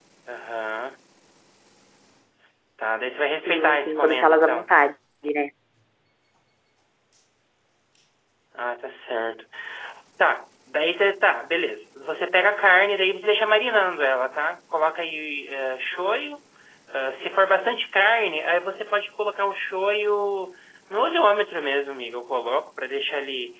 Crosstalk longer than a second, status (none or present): present